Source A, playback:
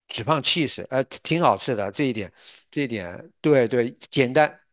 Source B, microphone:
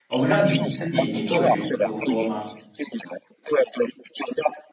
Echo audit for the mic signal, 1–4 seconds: both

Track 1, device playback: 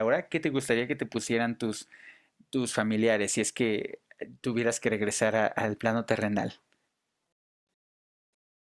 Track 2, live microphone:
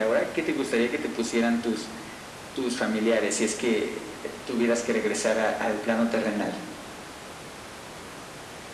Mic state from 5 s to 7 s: echo only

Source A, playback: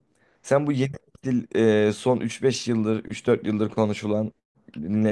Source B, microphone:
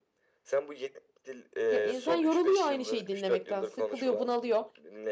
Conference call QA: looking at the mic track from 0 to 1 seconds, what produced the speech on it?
echo only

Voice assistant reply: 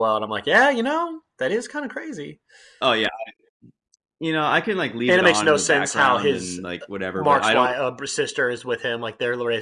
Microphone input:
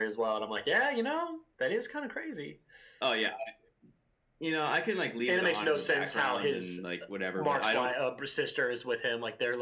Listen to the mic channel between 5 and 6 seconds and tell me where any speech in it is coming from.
echo only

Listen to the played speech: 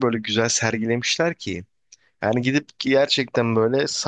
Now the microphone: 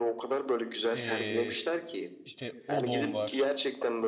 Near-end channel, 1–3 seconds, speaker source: both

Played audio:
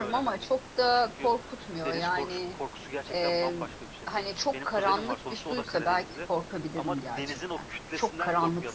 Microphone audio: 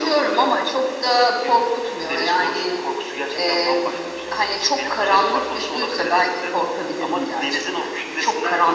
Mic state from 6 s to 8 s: echo only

